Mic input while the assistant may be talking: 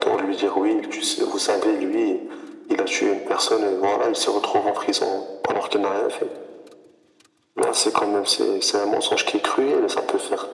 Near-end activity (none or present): none